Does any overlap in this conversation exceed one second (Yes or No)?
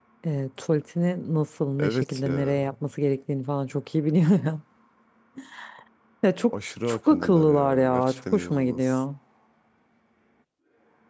Yes